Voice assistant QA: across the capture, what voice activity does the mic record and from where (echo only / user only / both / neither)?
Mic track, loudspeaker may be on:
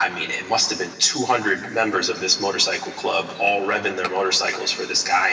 echo only